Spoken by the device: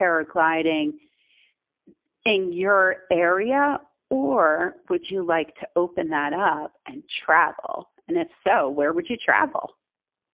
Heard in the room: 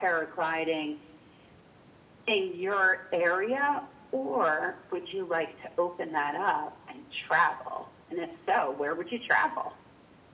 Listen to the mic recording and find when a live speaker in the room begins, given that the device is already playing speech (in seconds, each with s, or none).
none